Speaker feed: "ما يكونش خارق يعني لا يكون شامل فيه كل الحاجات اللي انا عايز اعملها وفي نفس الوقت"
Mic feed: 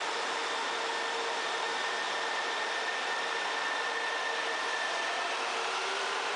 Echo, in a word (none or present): none